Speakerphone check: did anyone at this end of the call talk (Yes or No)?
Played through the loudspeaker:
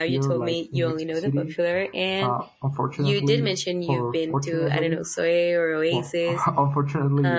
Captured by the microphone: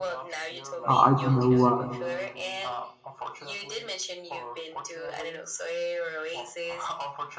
Yes